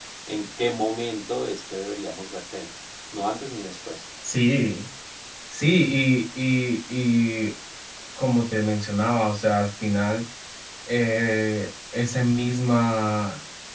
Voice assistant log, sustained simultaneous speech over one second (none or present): none